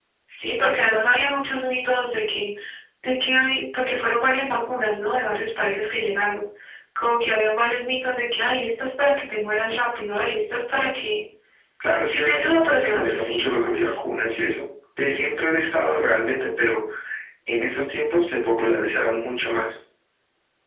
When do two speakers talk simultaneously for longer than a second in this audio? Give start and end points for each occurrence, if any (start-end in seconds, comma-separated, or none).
12.0-14.0